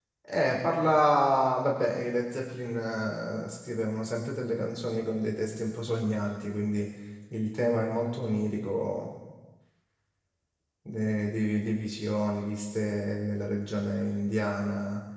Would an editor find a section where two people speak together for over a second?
No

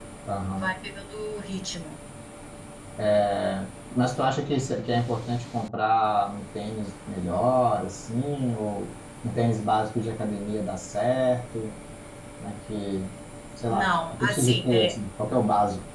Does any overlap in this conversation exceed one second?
Yes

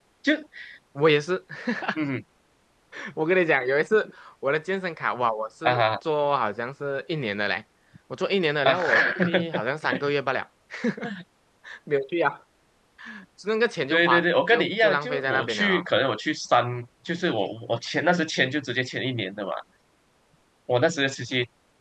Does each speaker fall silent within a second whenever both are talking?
No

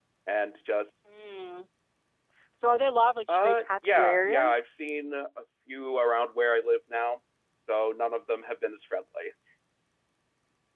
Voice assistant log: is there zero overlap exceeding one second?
No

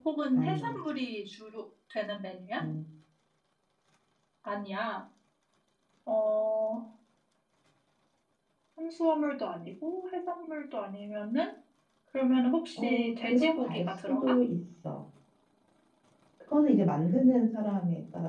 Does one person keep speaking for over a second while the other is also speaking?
Yes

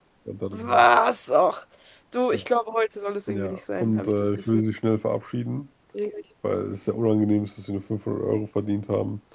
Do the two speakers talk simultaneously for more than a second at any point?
Yes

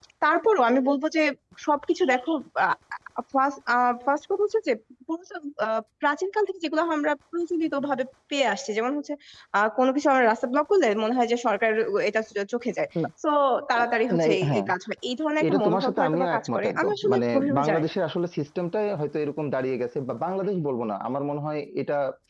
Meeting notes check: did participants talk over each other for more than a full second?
Yes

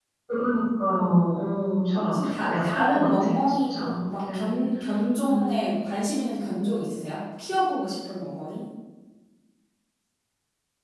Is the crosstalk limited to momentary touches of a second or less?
No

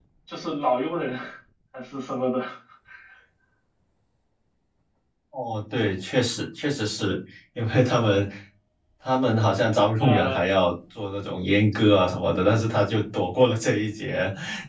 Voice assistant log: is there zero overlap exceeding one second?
Yes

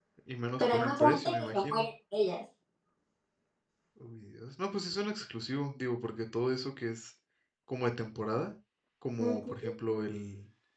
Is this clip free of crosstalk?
No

